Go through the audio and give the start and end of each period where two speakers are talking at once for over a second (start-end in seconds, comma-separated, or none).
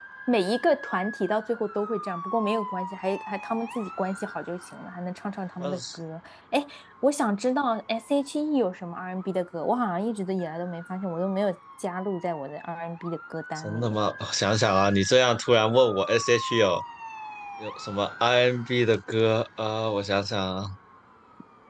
none